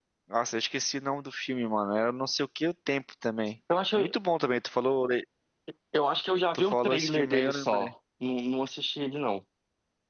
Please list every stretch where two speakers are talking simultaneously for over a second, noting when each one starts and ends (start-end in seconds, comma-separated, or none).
6.5-7.9